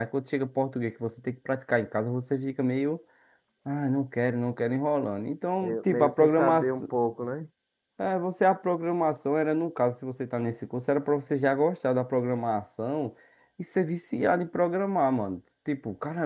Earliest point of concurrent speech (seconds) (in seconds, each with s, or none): 5.6 s